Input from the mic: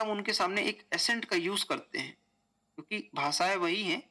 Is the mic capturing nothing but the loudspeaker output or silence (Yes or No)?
Yes